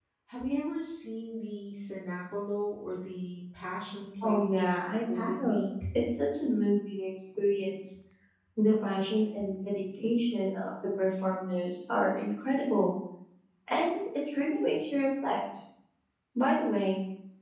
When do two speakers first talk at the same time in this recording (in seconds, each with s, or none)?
4.2 s